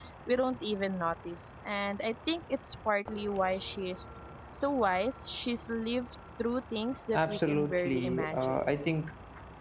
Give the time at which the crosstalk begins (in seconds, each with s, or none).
7.1 s